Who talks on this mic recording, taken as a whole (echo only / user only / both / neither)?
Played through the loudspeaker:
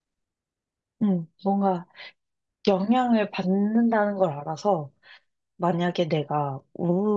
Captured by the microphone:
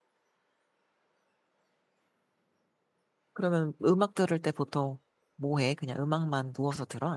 user only